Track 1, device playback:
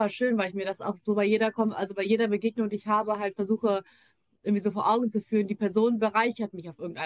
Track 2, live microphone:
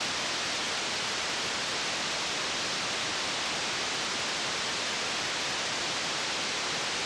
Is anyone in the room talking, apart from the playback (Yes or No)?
No